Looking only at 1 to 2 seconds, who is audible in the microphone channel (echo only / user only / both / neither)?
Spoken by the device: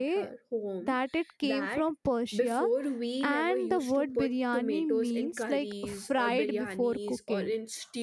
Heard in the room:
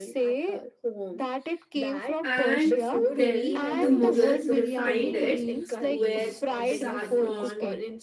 echo only